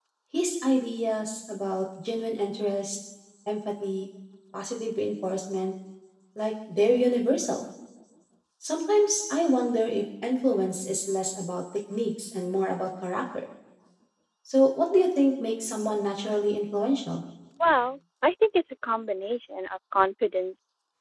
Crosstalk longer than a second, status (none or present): none